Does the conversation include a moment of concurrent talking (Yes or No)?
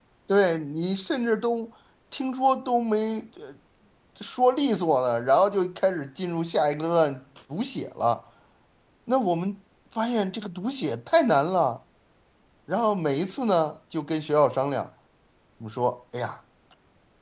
No